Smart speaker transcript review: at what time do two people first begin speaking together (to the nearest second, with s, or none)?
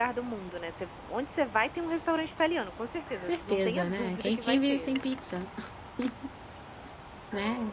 3 s